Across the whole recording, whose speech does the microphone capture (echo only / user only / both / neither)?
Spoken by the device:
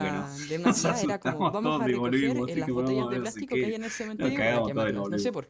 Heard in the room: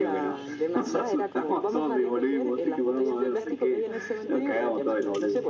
both